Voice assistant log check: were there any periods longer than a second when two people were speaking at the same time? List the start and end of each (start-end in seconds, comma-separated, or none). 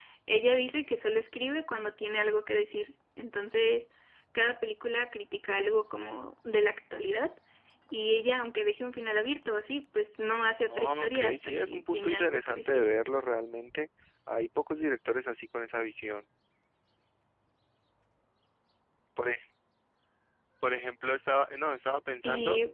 10.7-12.9